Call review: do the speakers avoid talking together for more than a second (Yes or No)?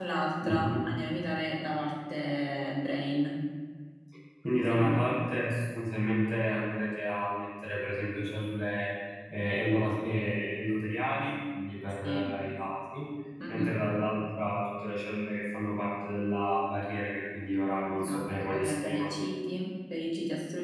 No